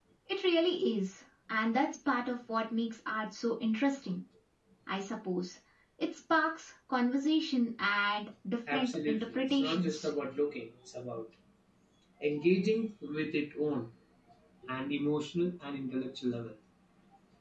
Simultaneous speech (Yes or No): Yes